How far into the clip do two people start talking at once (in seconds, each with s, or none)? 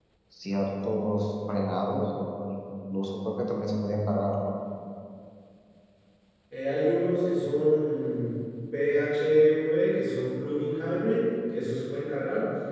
none